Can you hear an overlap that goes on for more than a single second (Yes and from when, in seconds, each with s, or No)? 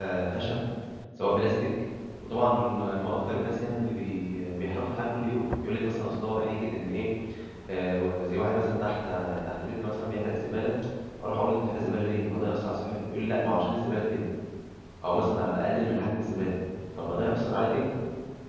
No